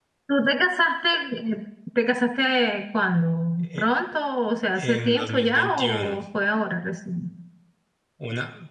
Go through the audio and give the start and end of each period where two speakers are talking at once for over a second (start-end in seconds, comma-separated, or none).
4.7-6.2